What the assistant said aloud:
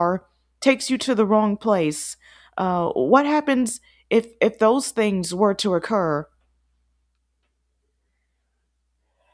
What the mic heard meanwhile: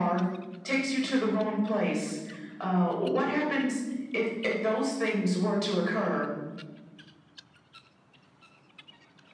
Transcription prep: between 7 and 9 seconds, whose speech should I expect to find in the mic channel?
neither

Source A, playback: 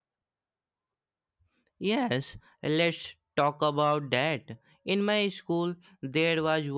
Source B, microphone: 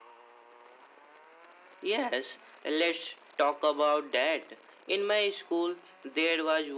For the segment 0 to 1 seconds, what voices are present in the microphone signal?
neither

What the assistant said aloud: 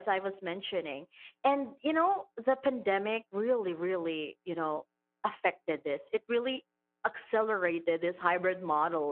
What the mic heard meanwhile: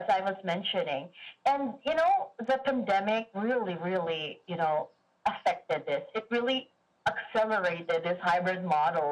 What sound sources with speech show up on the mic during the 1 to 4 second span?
echo only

